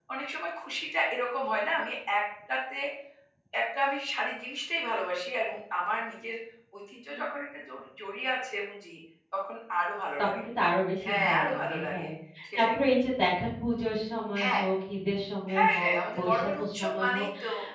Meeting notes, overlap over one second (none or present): present